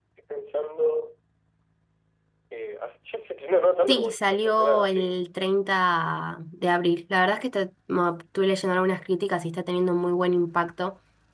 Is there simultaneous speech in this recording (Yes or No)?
Yes